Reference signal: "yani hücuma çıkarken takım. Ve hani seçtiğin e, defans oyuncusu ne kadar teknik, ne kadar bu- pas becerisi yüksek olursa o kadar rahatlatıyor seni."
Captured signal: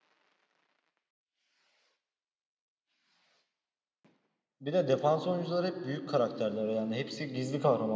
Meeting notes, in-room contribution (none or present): present